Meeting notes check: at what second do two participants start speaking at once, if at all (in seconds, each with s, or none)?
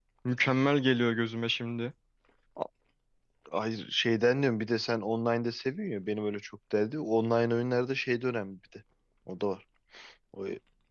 none